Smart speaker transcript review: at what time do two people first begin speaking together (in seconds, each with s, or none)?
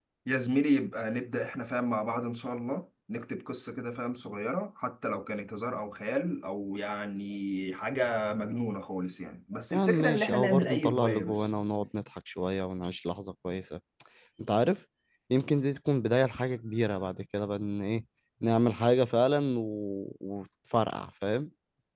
9.7 s